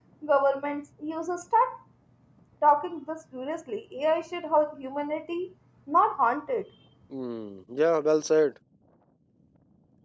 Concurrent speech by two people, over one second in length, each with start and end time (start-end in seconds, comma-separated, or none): none